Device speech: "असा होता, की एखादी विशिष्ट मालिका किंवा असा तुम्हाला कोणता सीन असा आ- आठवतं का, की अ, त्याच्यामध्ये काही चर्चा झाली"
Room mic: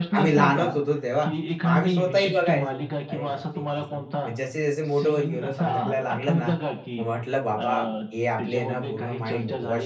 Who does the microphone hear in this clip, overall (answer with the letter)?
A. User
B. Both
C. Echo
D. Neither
B